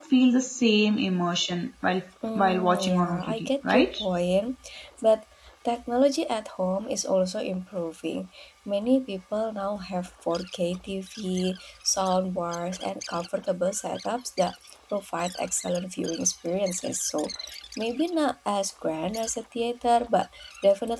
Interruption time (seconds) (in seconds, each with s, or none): 2.2 s